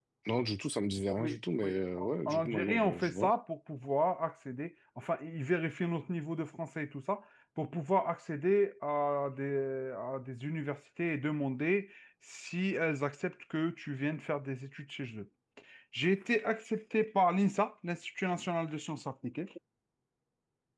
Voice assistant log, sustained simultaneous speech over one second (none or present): present